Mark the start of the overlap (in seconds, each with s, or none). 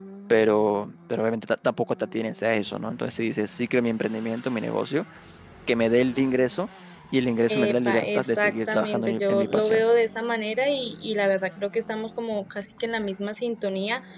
7.5 s